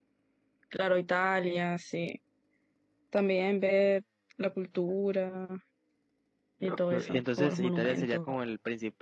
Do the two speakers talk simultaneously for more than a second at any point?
Yes, from 6.6 s

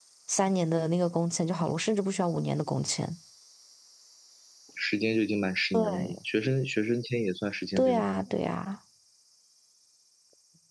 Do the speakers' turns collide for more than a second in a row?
No

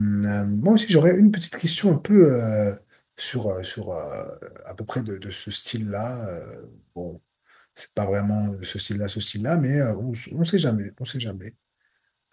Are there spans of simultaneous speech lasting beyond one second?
No

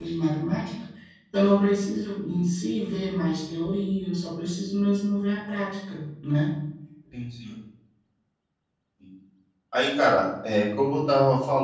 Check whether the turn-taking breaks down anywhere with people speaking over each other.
No

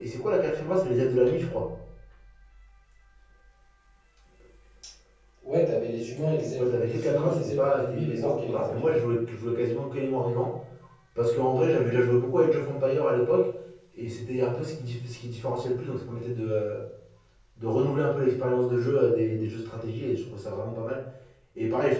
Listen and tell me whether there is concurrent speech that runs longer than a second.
Yes, from 6.6 s

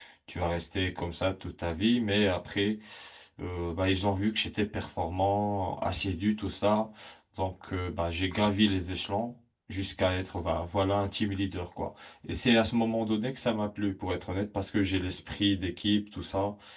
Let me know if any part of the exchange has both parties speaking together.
No

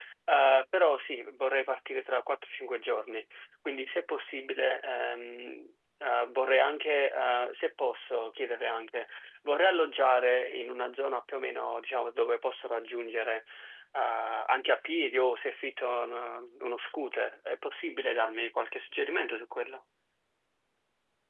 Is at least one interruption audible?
No

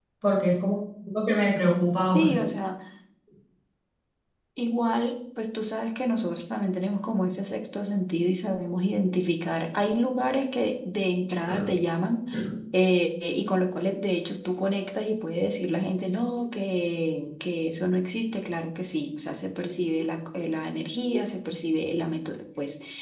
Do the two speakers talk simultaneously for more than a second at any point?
No

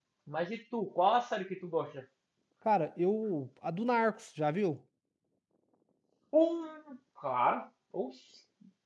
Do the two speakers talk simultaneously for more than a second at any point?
No

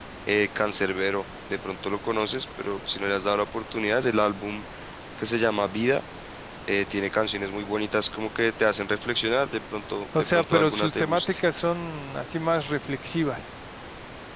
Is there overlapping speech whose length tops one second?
Yes, from 10.1 s

